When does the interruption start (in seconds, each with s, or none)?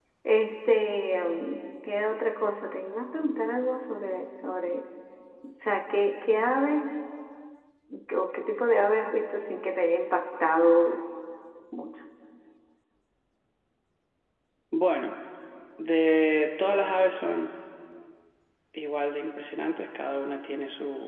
none